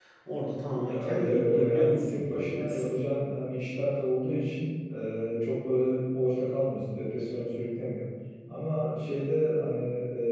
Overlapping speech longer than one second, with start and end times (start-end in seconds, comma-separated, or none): 0.9-2.8